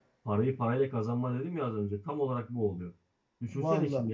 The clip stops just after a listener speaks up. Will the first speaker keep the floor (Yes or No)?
Yes